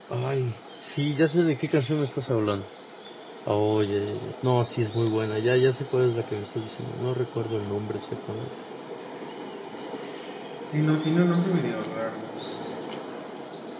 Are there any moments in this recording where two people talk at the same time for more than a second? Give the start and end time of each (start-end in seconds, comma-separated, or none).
none